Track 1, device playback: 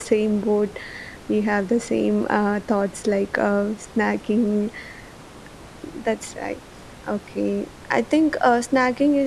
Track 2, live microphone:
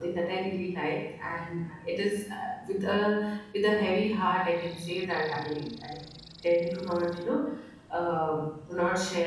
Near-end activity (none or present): present